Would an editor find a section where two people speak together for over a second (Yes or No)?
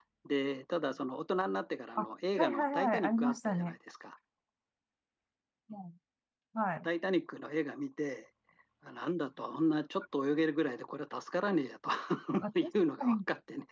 Yes